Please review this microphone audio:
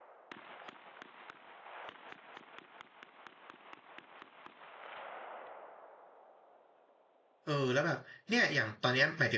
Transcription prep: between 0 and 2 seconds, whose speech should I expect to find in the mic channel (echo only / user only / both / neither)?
neither